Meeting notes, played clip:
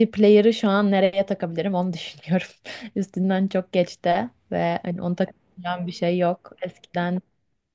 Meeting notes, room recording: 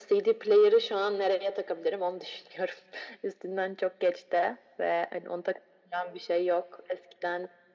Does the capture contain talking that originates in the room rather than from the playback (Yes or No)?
No